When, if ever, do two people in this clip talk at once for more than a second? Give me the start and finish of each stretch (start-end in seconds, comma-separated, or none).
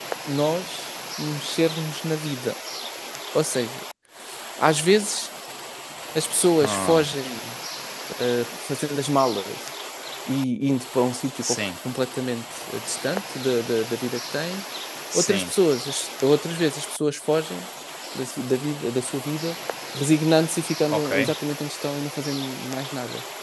none